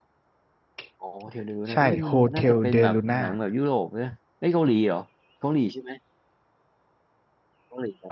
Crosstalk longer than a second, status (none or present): present